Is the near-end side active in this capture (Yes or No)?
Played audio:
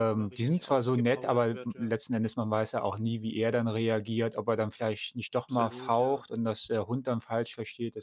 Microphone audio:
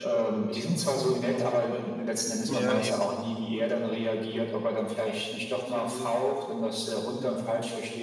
Yes